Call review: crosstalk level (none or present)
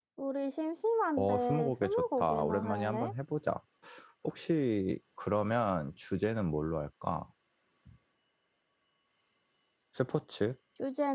present